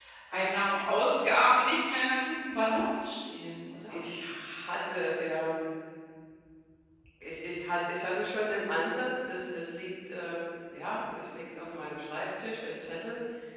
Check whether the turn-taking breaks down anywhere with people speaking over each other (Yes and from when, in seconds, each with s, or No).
No